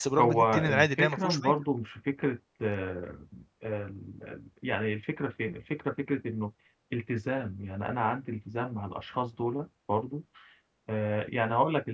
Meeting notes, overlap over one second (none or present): present